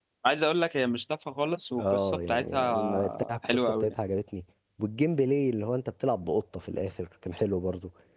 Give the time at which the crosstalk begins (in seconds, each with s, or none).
1.8 s